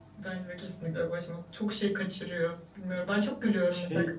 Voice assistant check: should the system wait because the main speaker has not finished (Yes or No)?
Yes